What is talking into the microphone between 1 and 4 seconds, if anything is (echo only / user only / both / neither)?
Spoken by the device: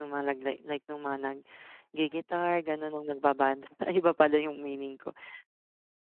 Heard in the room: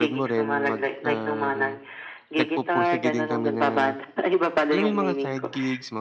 both